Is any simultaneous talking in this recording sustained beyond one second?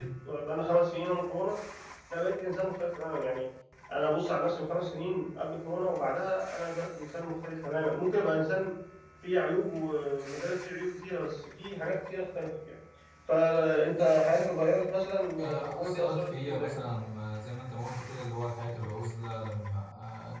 Yes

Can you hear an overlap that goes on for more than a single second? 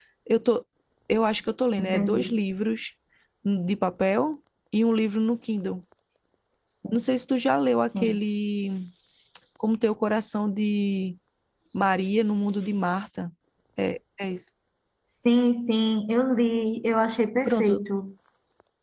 No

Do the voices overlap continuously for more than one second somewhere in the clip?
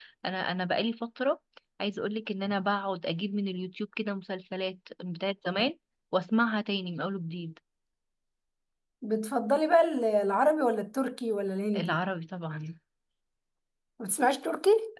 No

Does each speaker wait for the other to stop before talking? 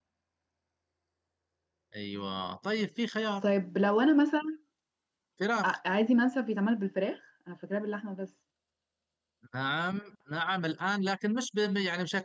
Yes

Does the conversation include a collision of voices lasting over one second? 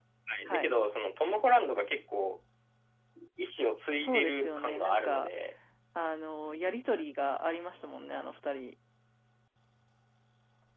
Yes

